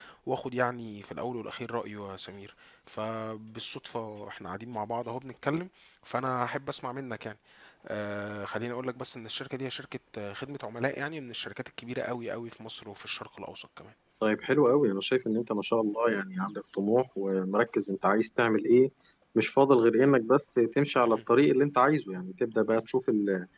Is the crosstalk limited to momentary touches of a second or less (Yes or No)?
Yes